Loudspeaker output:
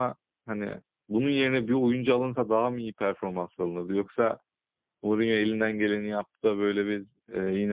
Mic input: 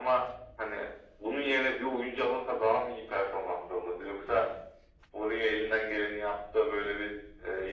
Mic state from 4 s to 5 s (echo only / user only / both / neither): echo only